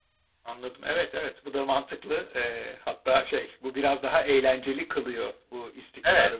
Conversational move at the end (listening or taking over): listening